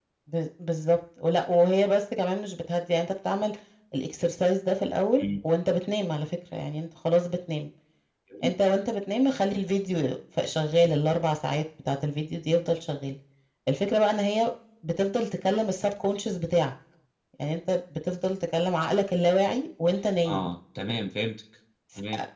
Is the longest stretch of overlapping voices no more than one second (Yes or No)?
Yes